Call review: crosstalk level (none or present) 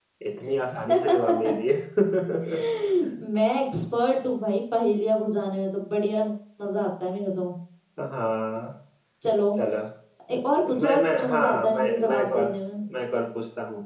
present